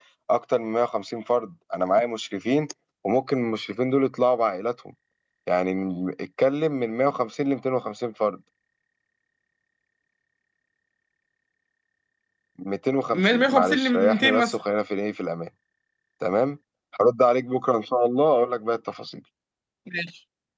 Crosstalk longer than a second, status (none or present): present